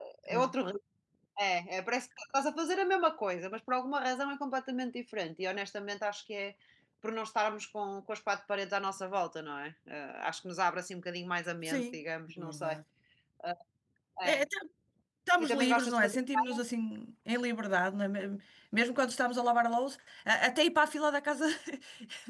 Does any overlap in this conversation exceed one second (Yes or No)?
Yes